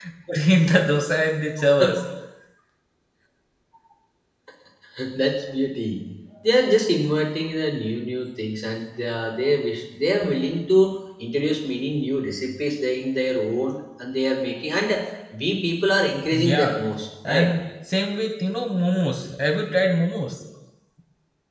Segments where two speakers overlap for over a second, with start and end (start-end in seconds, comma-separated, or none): none